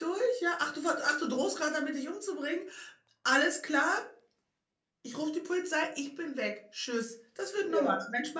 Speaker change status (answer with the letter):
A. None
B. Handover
A